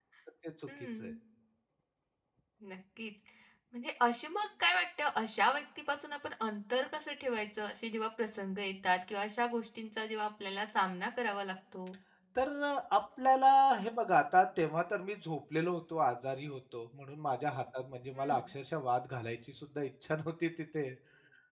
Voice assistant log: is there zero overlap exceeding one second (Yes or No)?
Yes